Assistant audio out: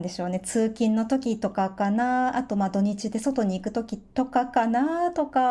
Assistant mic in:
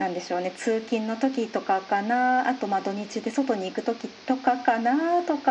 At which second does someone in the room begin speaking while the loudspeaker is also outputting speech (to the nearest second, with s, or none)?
none